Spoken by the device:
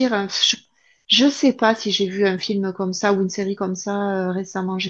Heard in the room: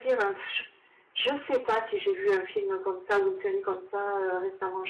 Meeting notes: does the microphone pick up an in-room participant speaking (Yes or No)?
No